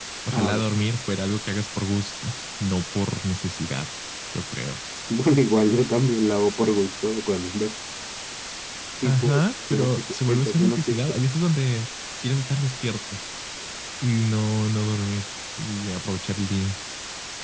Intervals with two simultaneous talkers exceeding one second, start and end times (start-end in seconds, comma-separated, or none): 9.7-11.1